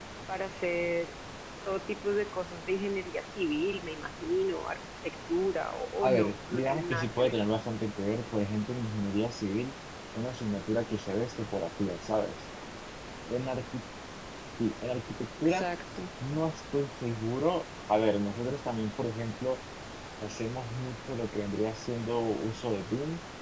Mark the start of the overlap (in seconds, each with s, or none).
6.0 s